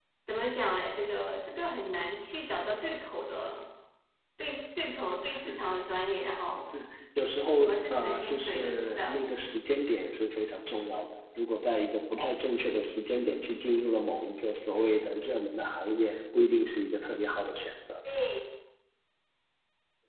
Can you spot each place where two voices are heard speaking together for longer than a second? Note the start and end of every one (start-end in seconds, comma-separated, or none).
7.6-9.2